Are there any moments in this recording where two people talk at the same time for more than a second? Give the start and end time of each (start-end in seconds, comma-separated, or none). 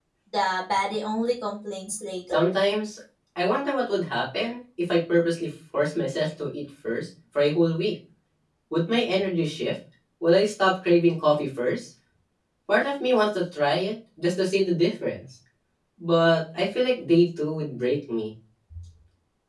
none